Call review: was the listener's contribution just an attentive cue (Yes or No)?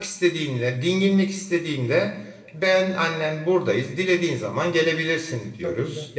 Yes